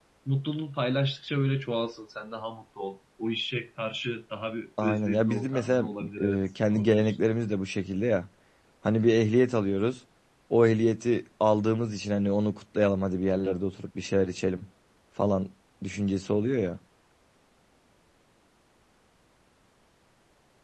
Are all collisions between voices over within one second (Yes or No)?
No